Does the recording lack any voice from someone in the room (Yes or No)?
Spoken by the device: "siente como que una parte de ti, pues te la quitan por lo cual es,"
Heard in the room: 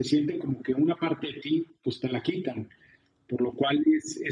Yes